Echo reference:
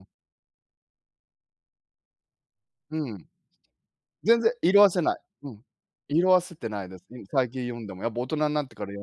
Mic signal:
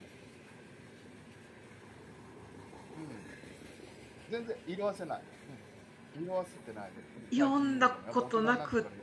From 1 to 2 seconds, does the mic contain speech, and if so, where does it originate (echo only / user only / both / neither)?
neither